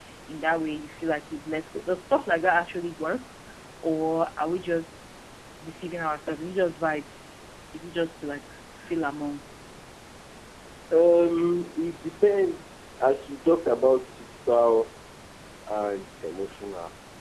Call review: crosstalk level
none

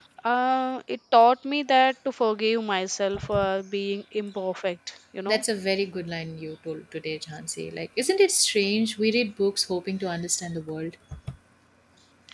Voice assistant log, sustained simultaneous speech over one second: none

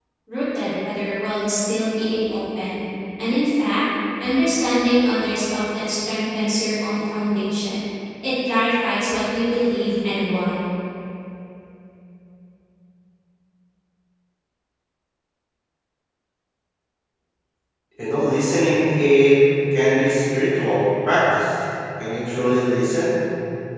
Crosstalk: none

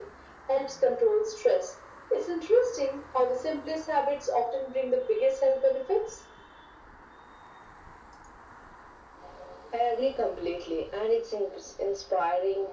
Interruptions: none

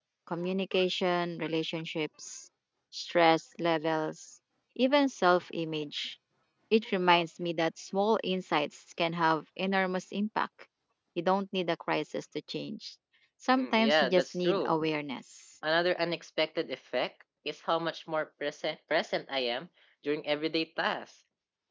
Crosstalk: present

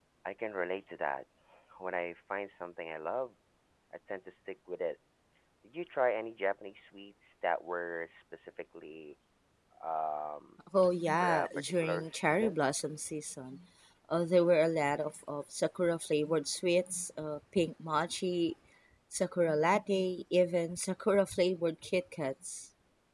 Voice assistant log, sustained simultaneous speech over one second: present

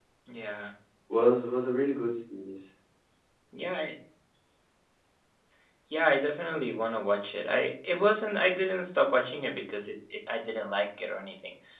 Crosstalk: none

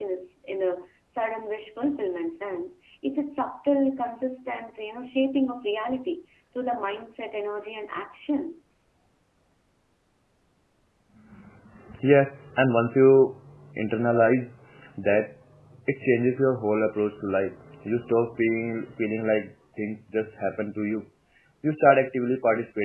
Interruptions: none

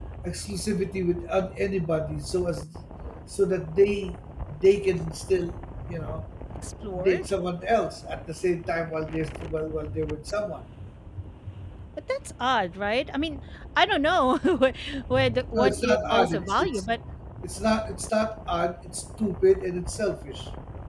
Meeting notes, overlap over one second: present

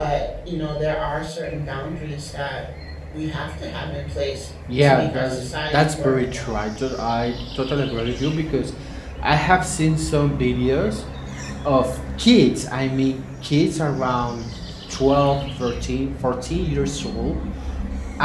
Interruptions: present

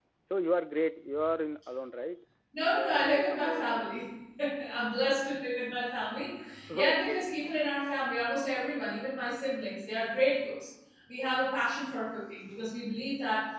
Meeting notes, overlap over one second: present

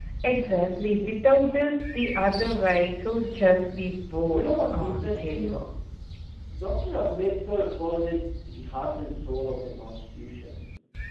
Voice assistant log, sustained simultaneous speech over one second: present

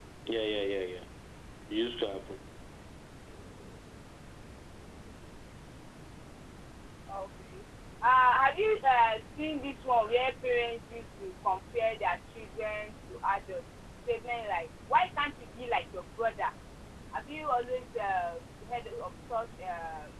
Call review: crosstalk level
none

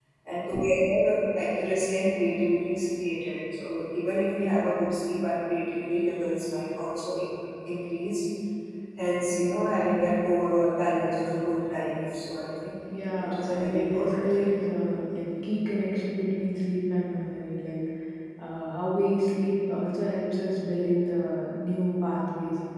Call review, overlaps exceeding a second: present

